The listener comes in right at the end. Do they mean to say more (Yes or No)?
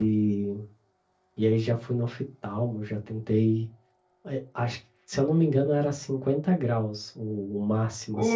No